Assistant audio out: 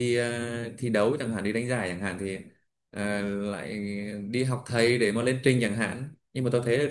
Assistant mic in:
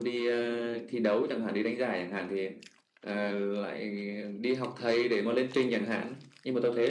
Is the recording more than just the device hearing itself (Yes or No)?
No